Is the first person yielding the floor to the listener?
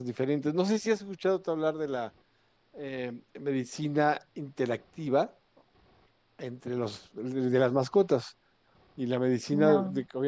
No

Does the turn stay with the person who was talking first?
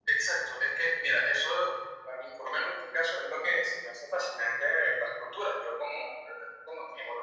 Yes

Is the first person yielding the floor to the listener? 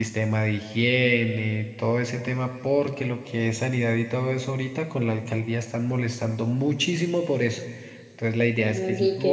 No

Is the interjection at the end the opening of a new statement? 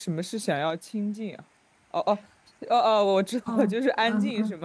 Yes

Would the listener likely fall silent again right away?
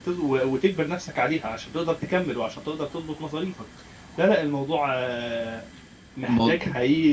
Yes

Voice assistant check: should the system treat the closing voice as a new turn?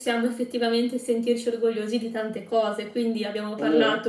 No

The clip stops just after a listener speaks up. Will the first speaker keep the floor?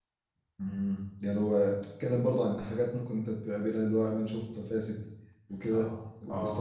Yes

